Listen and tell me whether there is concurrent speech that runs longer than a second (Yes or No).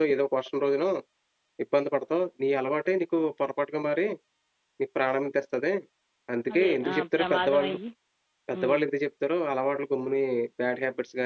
Yes